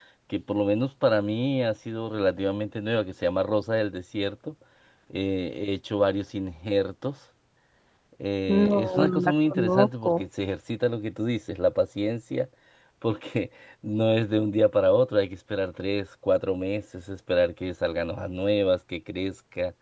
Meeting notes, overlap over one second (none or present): present